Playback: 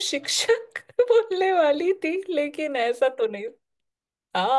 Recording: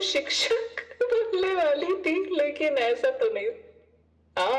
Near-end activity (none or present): none